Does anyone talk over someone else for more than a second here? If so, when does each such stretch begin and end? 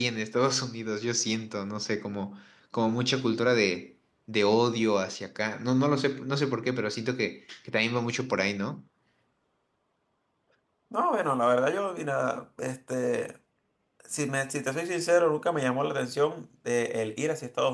none

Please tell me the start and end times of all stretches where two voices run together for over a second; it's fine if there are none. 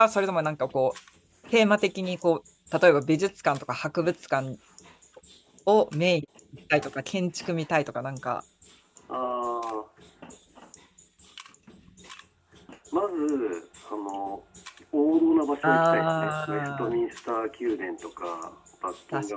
15.6-17.0

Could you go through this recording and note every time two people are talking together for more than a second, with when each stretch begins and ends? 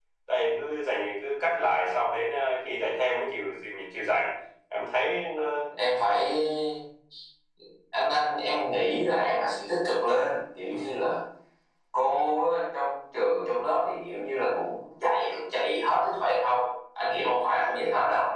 none

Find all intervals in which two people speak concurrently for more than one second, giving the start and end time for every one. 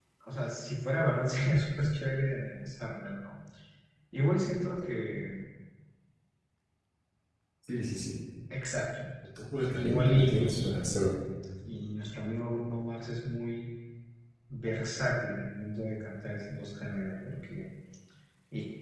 9.5-11.2

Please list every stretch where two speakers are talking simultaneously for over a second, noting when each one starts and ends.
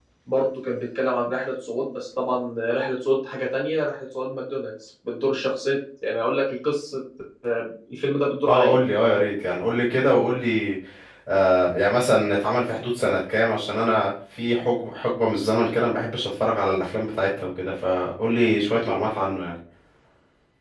none

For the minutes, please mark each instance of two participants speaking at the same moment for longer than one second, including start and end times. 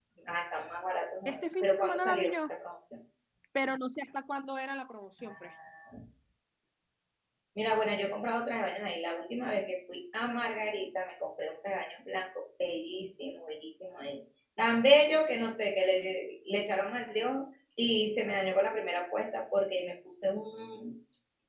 1.2-2.5

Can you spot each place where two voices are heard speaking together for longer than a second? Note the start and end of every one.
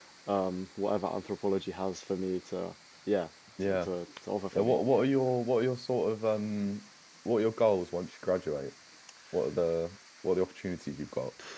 none

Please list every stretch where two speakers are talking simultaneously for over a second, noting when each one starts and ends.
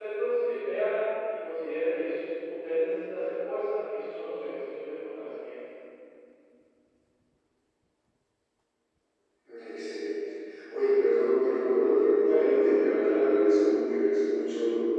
12.2-13.5

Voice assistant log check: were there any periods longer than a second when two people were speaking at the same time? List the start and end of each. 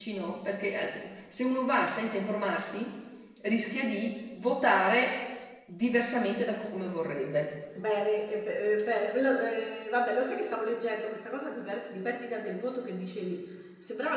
none

